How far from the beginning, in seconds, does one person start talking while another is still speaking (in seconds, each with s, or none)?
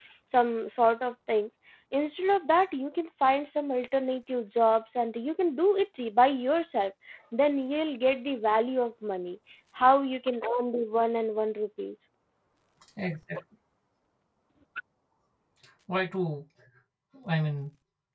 none